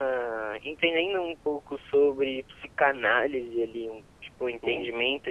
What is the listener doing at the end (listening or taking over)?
listening